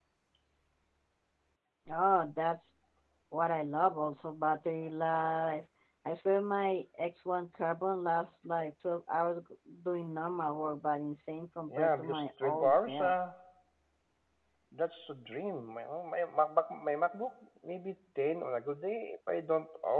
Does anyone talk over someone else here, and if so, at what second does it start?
11.7 s

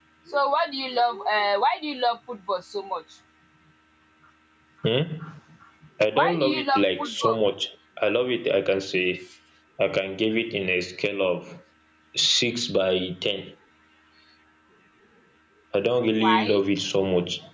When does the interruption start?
6.2 s

